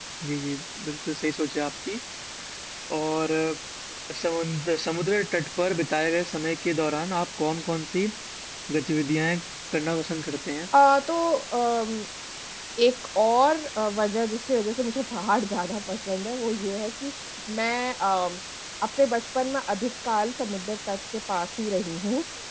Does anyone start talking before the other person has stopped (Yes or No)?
No